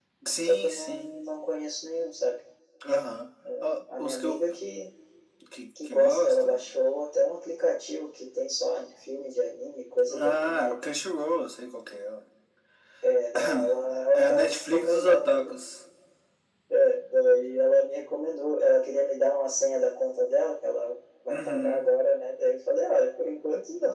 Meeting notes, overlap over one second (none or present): present